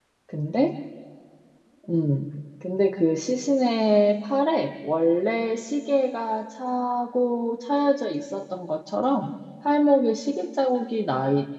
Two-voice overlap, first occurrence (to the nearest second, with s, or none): none